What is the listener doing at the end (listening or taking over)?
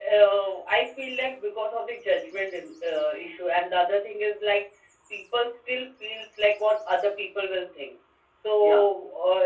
listening